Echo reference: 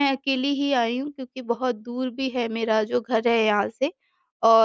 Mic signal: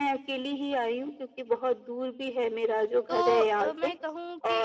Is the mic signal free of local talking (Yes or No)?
No